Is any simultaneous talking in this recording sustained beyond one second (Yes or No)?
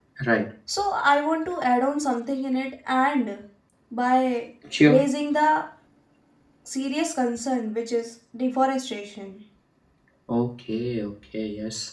No